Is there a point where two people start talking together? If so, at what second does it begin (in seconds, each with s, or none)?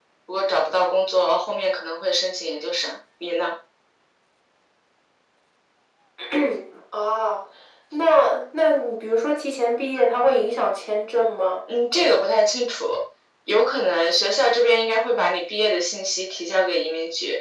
none